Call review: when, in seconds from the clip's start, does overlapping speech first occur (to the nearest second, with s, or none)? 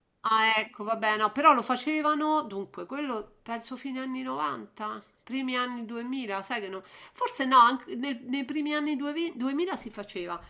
none